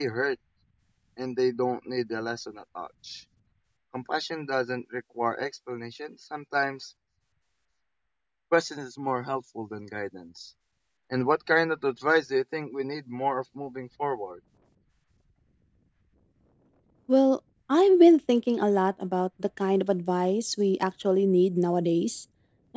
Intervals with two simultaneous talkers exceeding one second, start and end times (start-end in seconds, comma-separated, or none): none